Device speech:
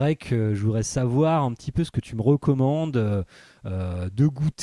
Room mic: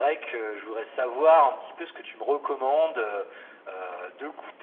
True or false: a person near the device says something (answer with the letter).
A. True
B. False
B